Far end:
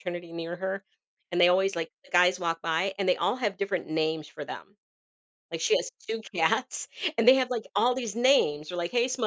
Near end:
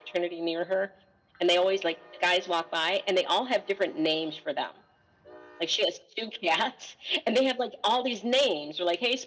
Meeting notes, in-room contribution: none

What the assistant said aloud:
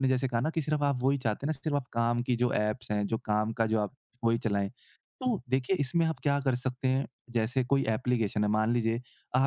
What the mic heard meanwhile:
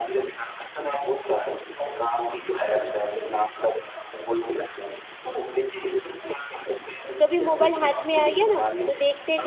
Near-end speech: present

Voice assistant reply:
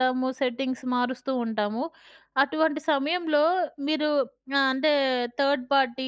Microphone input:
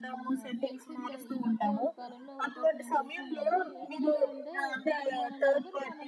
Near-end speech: present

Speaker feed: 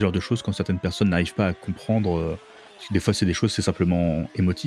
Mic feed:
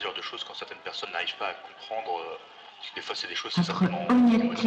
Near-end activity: present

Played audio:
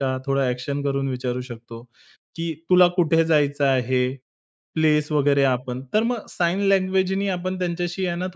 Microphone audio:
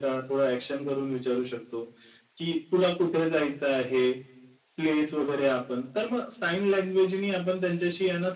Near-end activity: none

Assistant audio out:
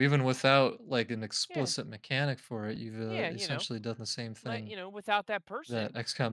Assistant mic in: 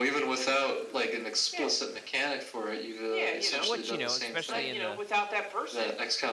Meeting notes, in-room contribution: present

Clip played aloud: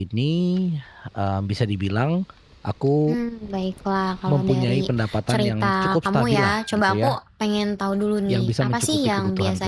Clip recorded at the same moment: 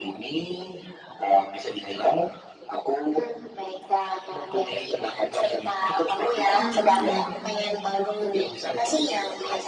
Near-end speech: present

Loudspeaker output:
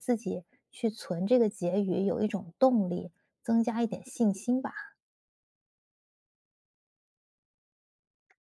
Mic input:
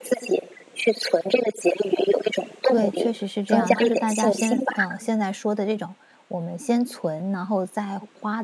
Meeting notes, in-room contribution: present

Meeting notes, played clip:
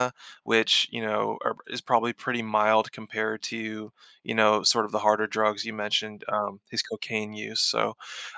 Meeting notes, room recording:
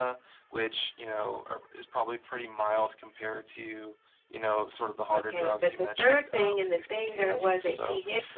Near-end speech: present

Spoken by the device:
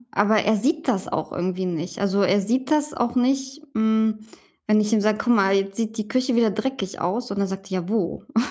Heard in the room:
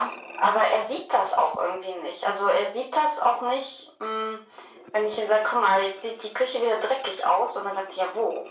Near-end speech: none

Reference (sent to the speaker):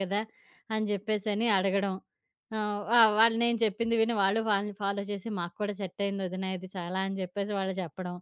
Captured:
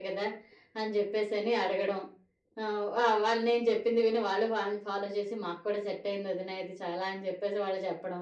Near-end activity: none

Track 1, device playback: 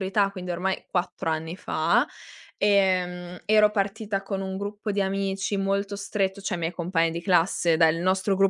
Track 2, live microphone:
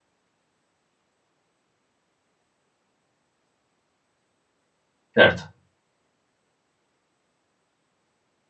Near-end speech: present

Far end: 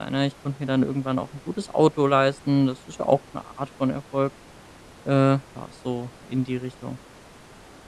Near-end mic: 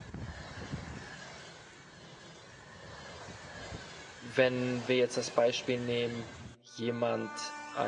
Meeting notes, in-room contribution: present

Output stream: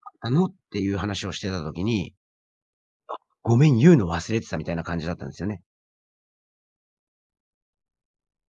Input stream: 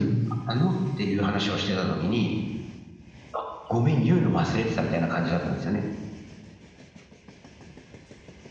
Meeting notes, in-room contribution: none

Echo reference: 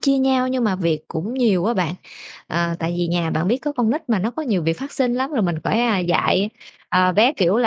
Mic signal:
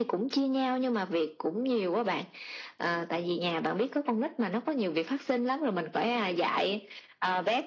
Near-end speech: none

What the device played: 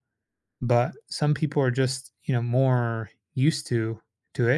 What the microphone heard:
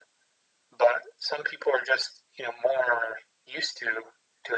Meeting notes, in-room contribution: none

